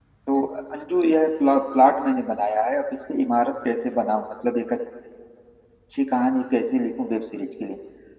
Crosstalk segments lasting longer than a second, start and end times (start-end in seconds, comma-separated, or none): none